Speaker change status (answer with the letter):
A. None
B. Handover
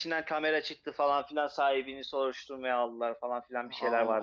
B